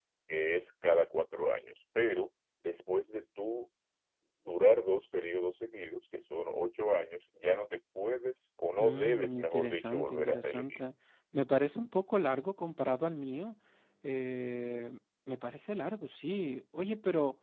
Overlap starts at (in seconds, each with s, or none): 8.8 s